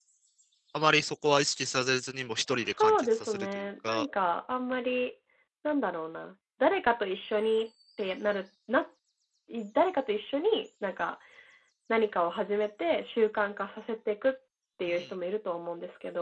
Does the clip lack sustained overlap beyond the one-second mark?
No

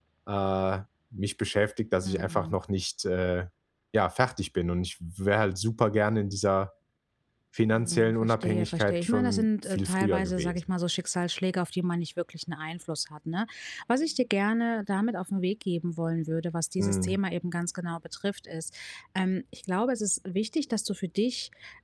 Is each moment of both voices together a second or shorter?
No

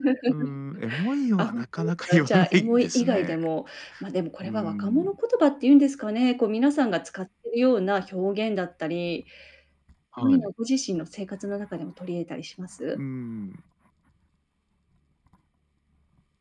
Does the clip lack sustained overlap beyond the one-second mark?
No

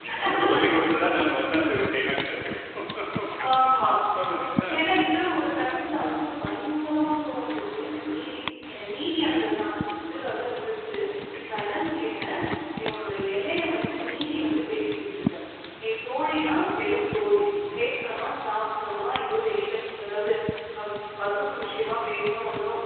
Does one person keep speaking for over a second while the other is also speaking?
No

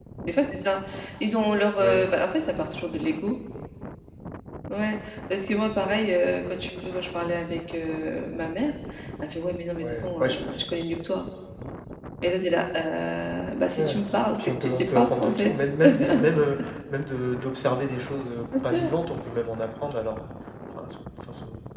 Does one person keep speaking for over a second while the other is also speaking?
Yes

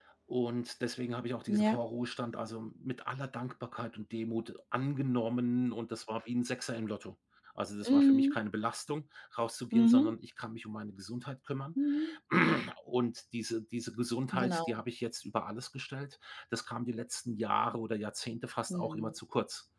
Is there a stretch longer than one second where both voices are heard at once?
No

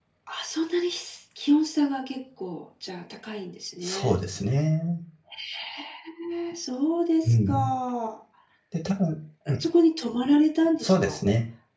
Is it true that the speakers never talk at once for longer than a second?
Yes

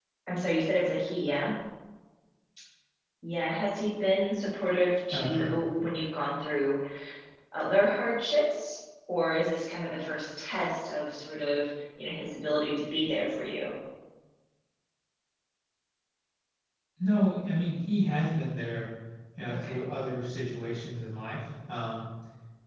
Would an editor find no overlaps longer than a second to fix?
Yes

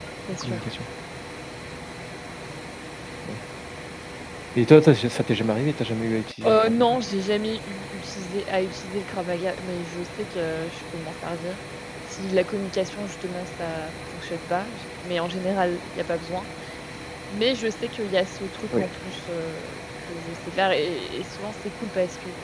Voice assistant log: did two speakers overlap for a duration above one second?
No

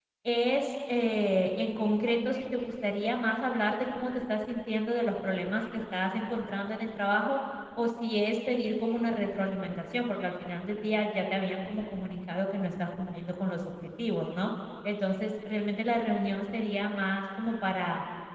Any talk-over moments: No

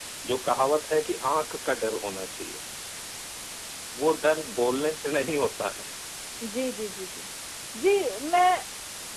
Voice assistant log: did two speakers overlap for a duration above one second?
No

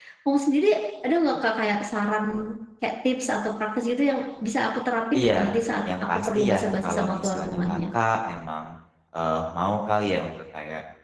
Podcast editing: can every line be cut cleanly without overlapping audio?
No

